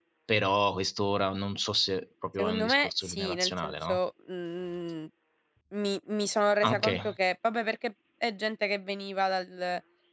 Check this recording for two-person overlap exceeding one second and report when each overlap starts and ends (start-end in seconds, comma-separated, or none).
2.4-4.0